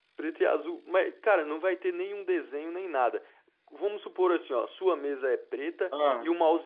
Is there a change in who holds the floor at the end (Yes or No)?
No